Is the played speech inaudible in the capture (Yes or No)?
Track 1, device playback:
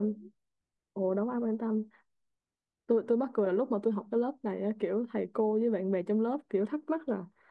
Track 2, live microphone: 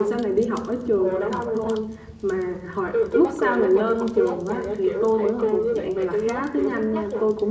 No